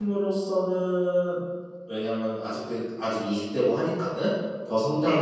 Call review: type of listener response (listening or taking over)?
listening